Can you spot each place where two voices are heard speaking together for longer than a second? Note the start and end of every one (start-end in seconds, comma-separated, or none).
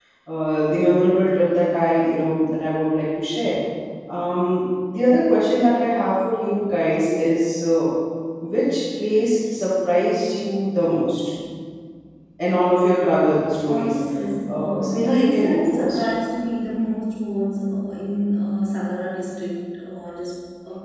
14.5-16.0